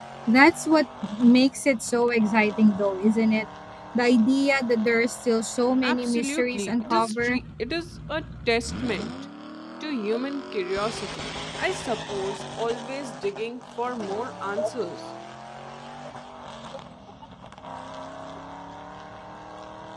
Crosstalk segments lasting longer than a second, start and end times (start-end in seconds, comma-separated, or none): 5.8-7.4